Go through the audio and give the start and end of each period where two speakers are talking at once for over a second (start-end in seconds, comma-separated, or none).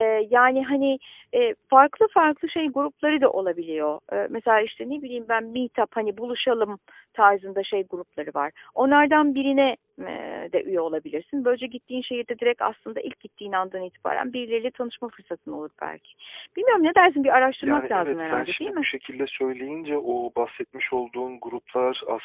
17.6-18.9